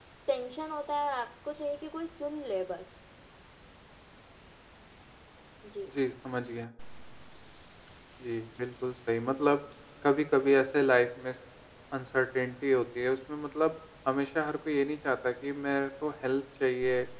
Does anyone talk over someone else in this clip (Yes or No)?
No